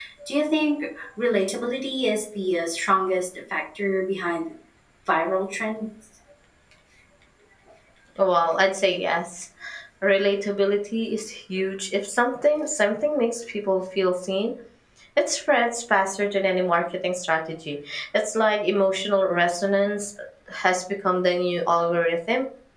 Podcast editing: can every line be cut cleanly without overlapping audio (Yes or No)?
Yes